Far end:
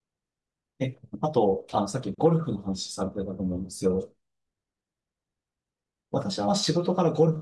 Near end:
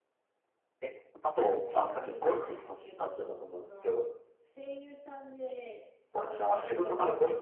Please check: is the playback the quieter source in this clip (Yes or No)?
No